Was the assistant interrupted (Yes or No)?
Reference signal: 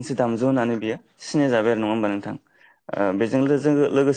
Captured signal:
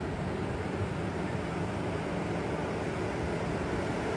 No